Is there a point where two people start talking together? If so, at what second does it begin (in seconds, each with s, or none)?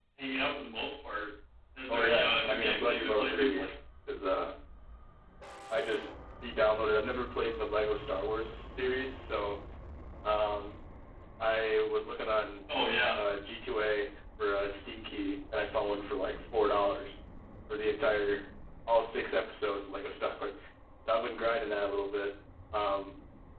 1.9 s